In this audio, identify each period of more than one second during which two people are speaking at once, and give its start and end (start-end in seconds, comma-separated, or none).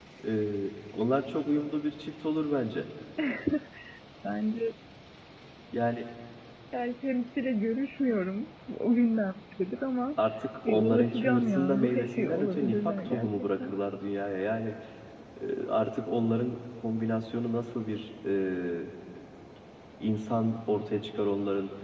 10.7-13.7